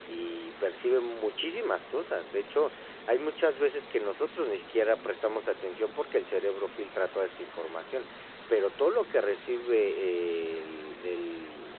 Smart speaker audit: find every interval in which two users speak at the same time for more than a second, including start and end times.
none

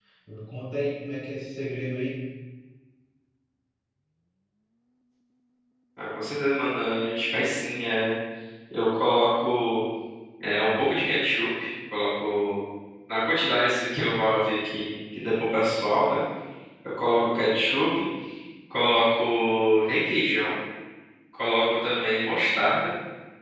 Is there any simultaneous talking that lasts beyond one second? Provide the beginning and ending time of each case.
none

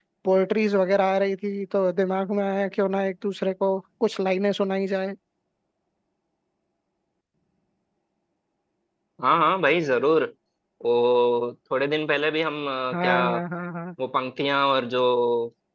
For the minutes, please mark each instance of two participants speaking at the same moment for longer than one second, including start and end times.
none

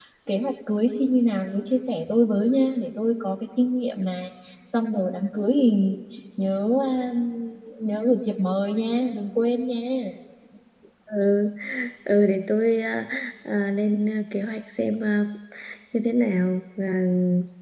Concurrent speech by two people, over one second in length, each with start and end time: none

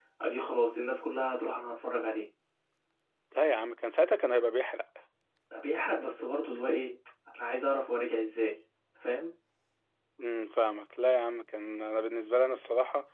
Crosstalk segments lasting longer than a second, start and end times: none

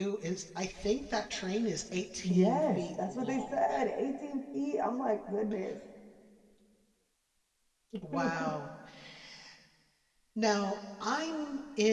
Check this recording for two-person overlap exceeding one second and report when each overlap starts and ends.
2.2-3.6

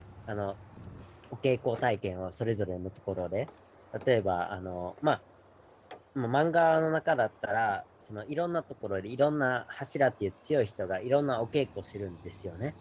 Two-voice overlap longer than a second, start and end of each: none

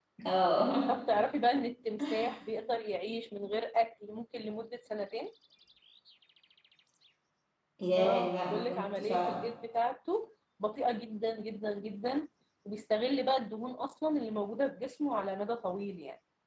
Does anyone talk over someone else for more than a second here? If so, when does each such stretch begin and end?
8.0-9.4

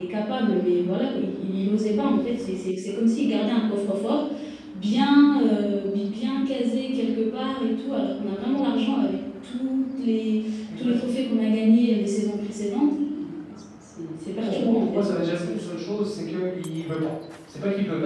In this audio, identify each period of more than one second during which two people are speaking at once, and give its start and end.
14.4-15.9

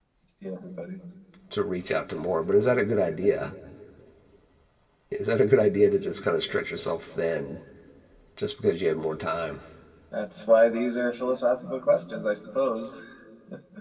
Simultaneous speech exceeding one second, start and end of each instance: none

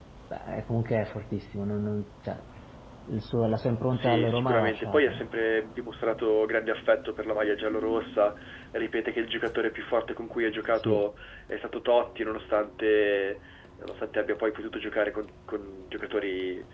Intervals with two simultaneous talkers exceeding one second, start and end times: 3.9-5.2

